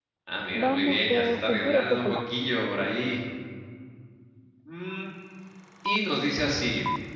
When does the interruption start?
0.5 s

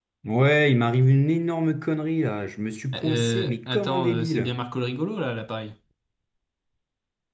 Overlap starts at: 2.9 s

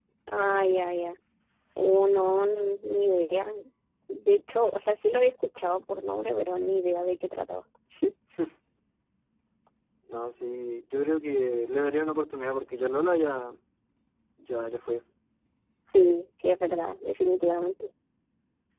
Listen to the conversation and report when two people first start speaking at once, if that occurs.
none

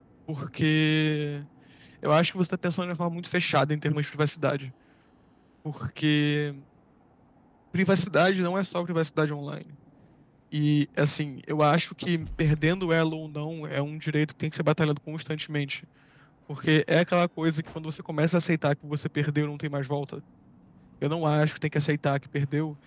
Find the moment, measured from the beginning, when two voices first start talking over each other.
none

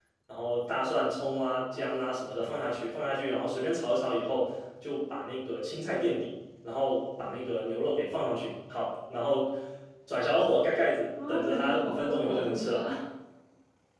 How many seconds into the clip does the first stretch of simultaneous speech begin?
11.2 s

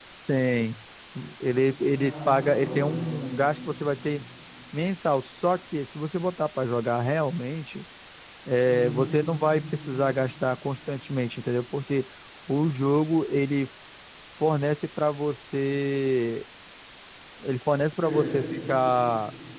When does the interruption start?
1.8 s

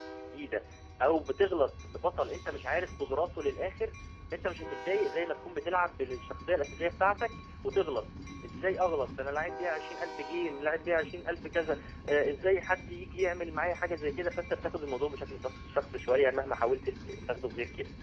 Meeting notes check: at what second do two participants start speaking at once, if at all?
none

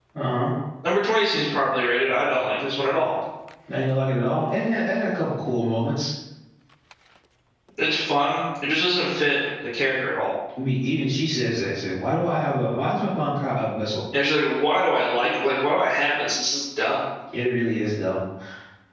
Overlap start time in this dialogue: none

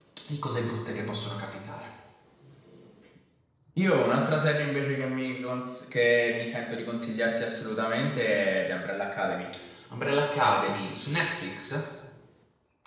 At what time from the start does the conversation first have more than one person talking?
none

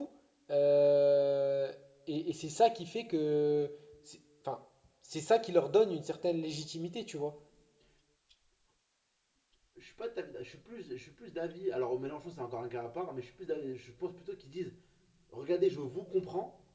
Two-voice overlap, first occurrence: none

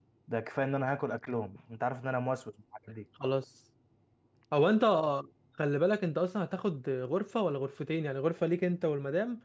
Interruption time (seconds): none

